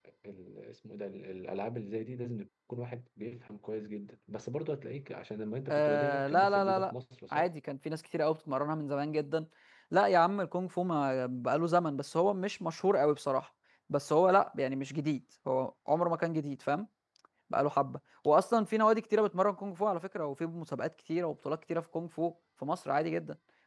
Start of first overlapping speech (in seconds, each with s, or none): 5.7 s